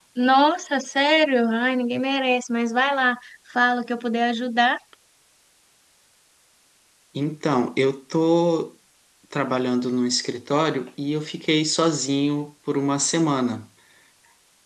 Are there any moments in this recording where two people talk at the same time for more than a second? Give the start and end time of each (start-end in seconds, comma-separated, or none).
none